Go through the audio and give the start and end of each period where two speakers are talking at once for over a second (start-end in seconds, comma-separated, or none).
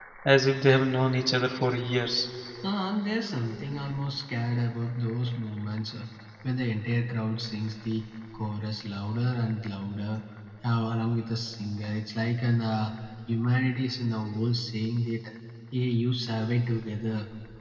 none